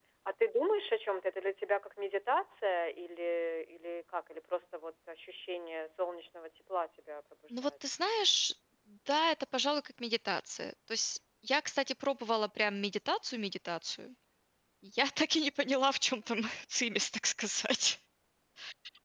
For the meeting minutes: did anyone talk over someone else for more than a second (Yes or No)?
No